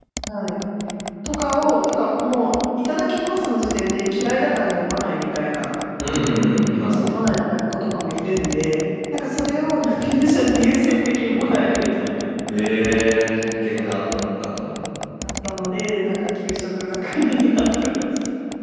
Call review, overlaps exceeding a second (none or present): none